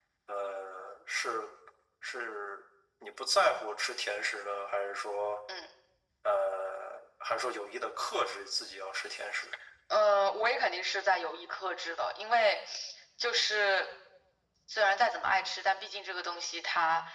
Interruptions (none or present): none